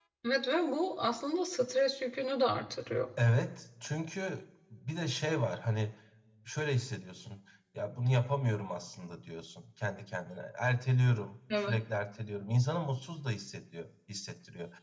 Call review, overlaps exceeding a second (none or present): none